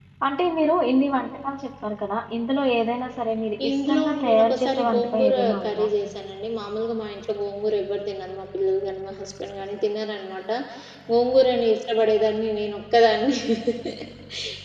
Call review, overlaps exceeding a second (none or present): present